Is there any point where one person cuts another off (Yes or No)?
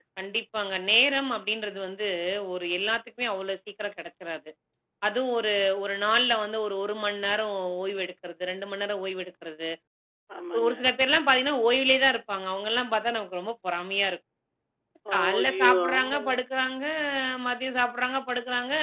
Yes